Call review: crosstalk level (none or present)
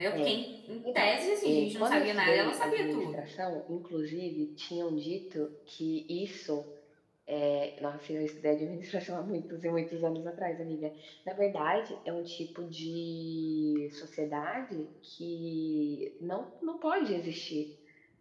present